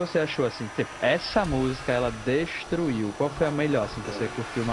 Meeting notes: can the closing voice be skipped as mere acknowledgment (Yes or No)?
No